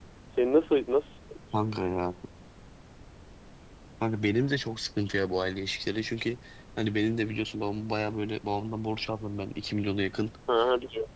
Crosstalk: none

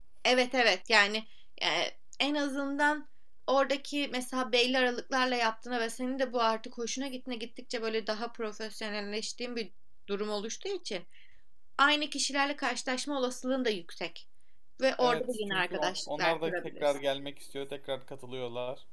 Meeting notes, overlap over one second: present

